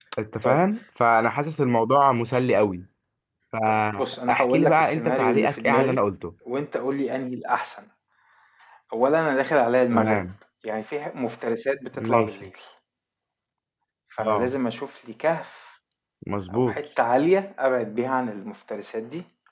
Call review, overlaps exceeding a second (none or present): present